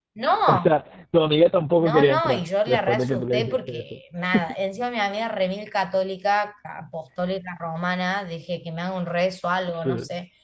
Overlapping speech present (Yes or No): Yes